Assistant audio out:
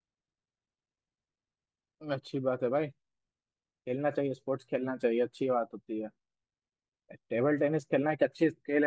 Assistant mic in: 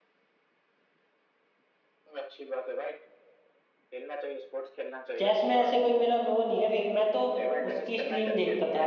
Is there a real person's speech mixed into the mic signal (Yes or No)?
Yes